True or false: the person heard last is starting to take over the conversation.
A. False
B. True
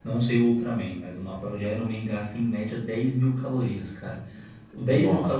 A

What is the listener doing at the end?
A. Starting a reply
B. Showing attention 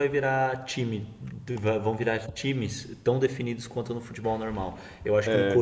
B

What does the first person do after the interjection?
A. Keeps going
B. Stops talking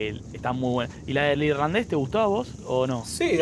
B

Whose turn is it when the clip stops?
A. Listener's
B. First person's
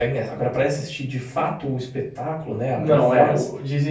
A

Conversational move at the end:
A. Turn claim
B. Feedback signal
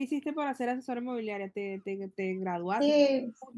A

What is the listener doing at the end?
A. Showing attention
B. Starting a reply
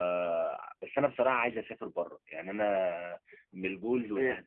B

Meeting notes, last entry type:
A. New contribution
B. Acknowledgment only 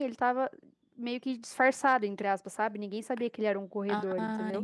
A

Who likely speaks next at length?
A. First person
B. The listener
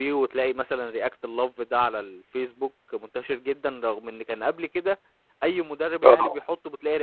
A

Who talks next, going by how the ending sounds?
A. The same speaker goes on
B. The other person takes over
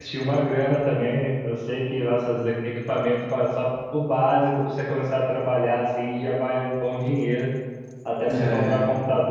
A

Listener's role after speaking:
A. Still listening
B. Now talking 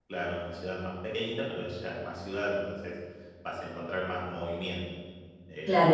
B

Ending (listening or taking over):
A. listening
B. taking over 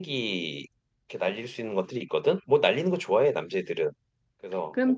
B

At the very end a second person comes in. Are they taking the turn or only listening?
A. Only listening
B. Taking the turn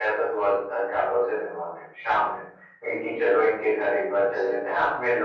A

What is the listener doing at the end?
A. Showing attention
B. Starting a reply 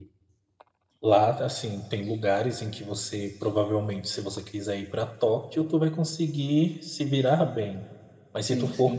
A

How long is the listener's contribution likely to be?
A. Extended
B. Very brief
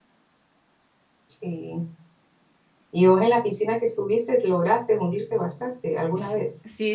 A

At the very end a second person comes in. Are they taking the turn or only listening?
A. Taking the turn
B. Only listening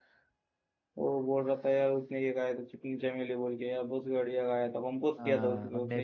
A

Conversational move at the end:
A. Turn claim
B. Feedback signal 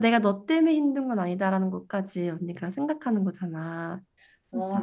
A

